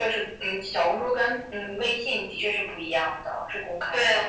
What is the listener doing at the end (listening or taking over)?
taking over